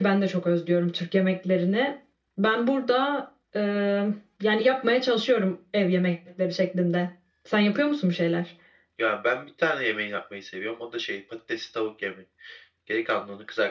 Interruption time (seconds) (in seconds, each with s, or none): none